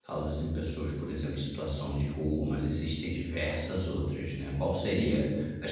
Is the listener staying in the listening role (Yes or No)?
Yes